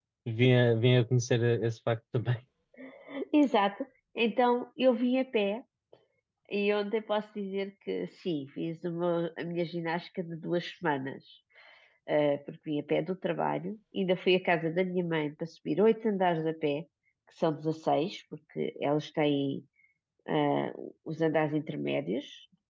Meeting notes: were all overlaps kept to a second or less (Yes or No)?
Yes